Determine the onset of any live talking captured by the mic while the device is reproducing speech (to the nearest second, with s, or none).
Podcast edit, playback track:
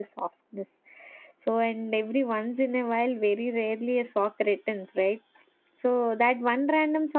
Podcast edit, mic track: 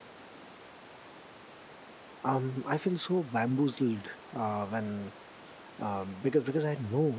2 s